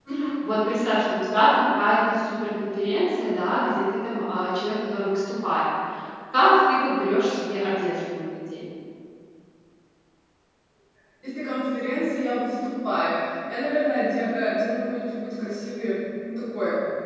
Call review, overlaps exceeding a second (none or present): none